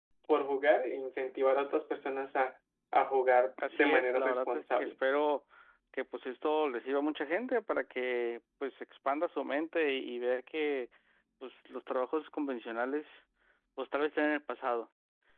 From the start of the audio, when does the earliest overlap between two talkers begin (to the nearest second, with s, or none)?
4 s